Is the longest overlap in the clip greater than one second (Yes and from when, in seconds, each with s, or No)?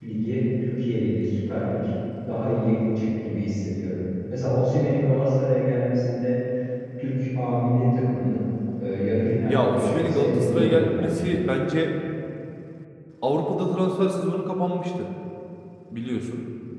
Yes, from 9.5 s